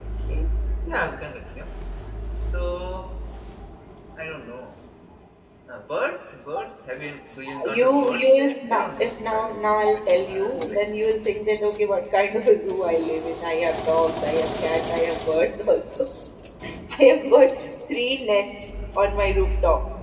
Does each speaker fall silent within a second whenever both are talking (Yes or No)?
No